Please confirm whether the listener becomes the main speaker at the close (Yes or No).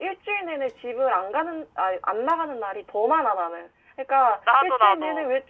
No